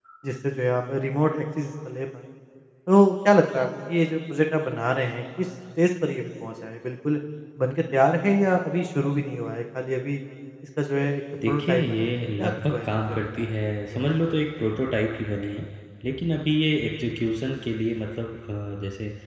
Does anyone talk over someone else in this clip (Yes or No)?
Yes